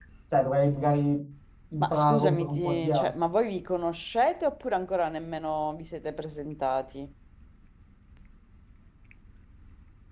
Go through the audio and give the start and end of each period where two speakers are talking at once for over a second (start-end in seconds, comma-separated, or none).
1.8-3.1